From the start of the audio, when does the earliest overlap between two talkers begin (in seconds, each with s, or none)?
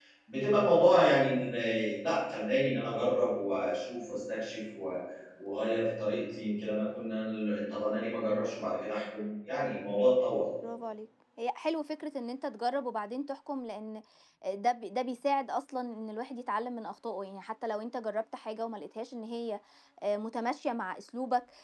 none